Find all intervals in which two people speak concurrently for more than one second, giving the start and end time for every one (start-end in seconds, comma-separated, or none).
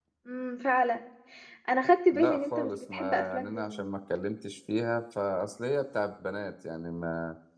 2.1-3.9